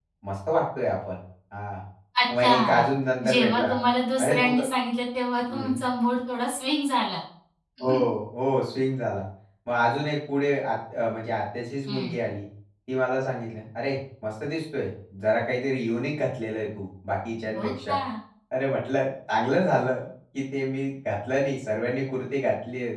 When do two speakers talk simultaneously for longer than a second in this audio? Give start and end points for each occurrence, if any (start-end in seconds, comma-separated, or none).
none